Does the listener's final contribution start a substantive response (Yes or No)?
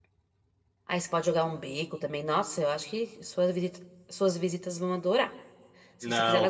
Yes